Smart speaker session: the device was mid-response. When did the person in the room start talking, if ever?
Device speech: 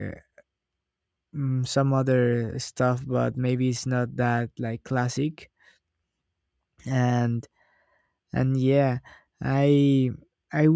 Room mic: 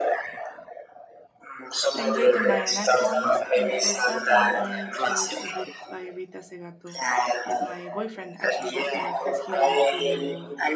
2 s

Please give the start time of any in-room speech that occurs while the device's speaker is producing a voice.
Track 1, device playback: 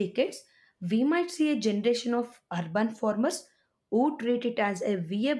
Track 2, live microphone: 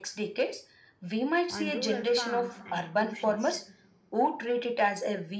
1 s

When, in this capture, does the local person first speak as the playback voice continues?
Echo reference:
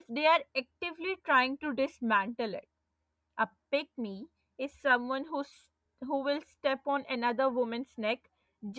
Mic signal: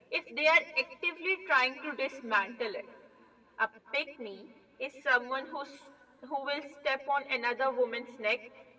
none

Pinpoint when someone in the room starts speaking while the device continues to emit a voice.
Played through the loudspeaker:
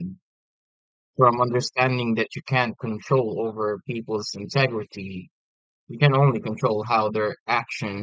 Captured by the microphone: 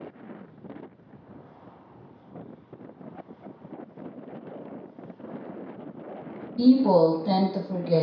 7 s

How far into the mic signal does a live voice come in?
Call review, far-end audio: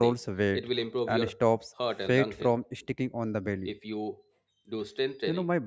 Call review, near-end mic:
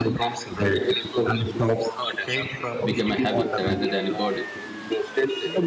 3 s

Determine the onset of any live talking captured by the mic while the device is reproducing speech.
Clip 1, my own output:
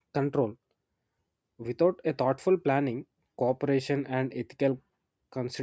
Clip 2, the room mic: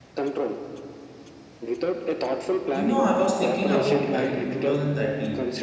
3 s

